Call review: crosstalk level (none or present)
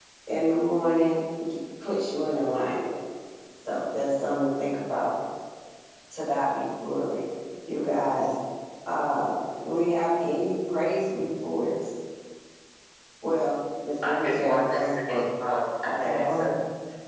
present